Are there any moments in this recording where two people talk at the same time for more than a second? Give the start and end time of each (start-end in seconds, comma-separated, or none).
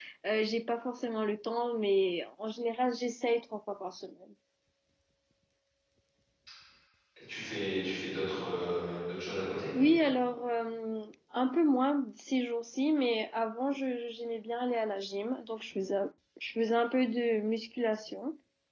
none